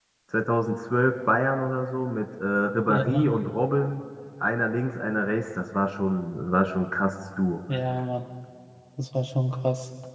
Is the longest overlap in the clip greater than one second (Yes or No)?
No